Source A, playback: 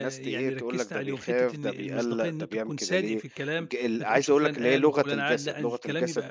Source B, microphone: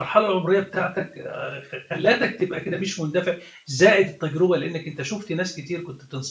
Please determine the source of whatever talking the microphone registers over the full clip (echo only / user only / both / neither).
user only